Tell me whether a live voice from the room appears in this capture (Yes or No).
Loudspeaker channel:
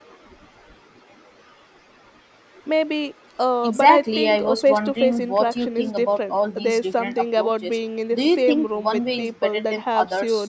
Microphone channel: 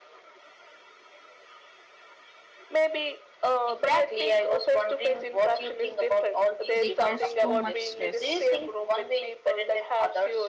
Yes